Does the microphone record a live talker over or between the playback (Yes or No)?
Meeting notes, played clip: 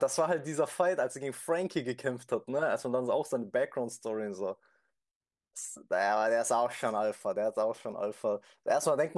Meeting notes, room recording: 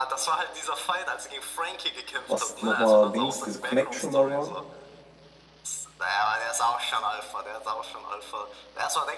Yes